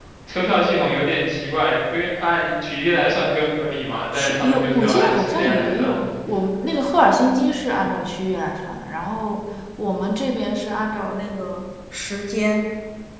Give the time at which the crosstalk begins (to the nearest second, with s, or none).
4 s